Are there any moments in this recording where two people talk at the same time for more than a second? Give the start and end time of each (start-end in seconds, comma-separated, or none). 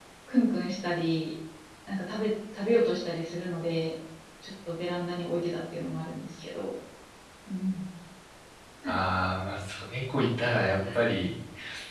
none